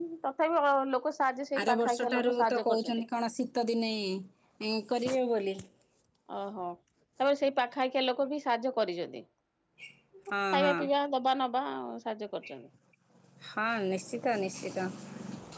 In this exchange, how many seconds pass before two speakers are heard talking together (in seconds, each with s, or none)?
1.6 s